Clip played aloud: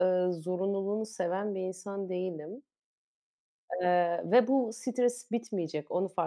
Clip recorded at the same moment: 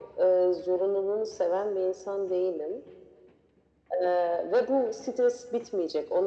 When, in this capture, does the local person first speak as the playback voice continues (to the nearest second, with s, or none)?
none